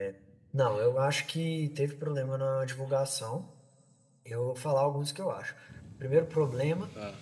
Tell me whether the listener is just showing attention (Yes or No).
Yes